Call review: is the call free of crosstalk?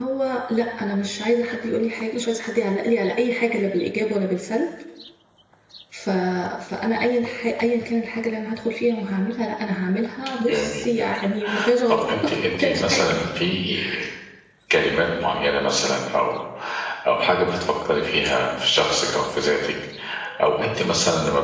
No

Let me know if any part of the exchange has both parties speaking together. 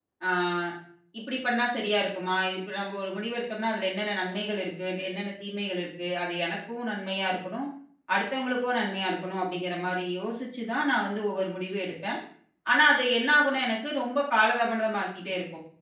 No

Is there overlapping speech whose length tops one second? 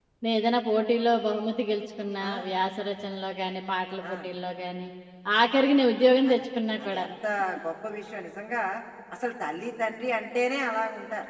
No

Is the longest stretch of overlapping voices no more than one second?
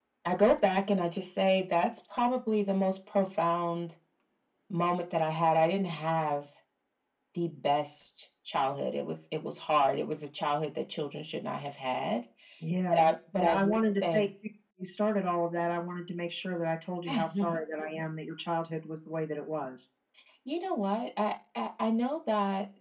No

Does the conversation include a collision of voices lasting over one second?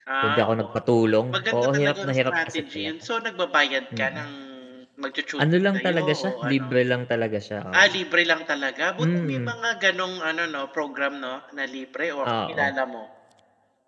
Yes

